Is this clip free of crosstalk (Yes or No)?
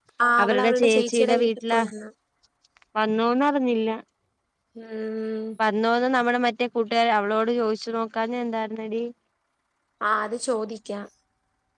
No